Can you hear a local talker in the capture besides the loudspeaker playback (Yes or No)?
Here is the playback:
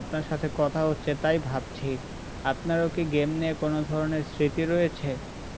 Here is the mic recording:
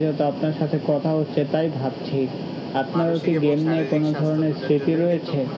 Yes